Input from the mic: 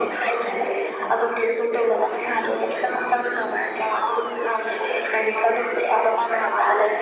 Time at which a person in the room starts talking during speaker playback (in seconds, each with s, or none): none